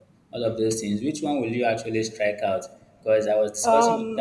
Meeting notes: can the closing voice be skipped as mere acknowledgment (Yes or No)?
Yes